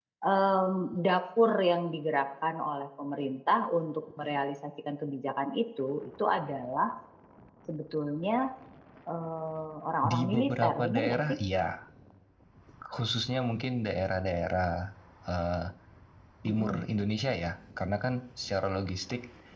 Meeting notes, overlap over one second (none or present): present